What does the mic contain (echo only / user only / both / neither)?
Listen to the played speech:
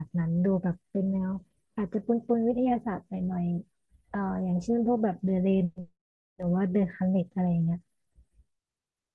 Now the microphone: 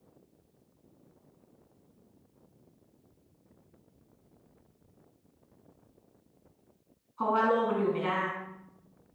user only